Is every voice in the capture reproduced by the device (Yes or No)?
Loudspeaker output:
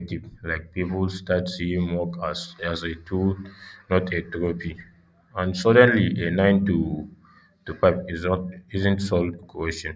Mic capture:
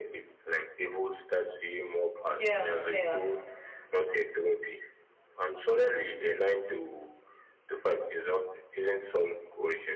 No